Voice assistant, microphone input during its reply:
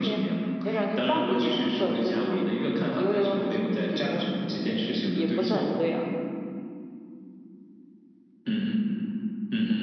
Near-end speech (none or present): present